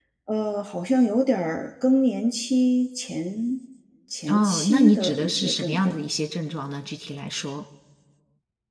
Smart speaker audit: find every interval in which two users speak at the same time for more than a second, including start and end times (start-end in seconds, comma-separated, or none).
4.3-6.0